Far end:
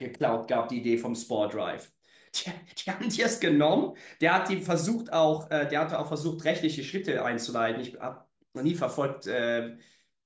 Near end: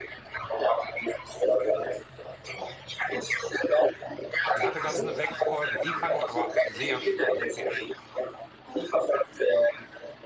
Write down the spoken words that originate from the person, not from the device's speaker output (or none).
Die hatte, glaube ich, nur sechs Folgen. Die fand ich aber sehr schwach, sehr schwach.